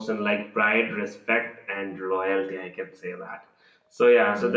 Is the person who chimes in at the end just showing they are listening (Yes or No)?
Yes